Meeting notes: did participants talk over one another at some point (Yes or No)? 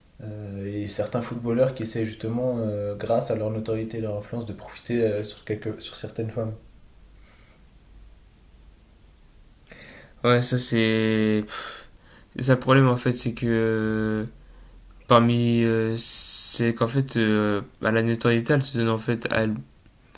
No